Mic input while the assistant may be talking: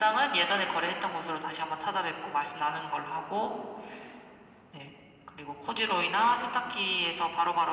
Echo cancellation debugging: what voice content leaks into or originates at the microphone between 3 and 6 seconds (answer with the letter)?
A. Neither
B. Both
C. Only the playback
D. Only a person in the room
C